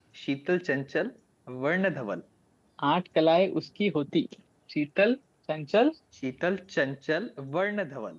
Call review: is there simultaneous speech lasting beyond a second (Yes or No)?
No